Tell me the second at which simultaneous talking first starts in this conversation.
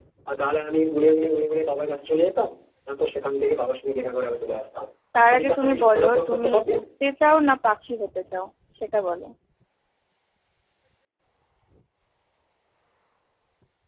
5.3 s

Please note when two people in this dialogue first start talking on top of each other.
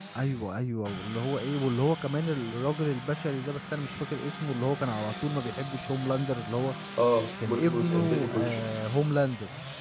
7.4 s

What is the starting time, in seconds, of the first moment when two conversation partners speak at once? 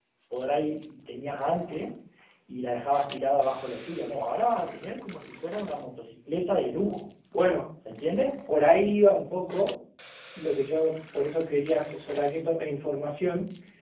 none

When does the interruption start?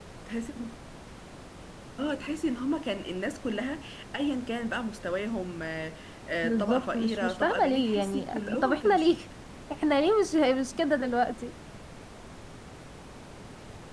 6.4 s

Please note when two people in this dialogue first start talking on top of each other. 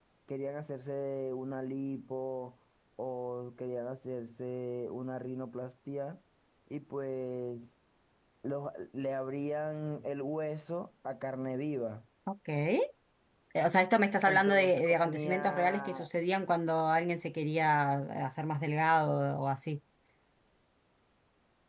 14.3 s

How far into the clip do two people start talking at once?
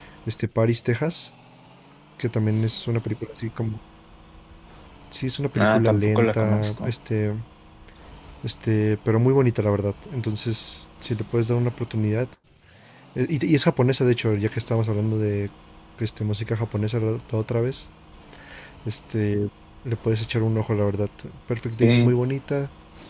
5.5 s

